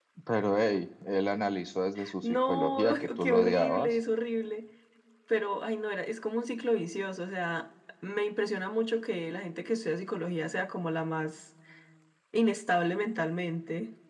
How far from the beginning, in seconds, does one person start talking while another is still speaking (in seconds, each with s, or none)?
2.2 s